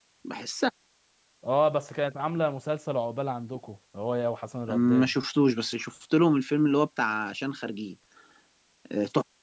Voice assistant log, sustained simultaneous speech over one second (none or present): none